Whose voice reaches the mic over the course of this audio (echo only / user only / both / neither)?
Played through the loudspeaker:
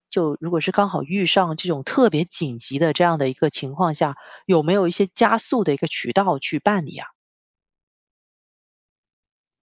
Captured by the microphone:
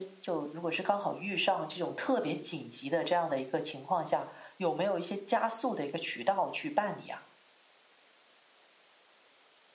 echo only